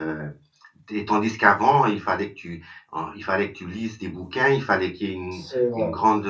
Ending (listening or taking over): listening